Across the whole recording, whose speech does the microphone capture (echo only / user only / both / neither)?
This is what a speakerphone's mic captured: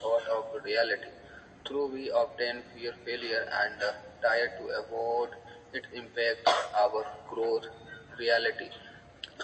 echo only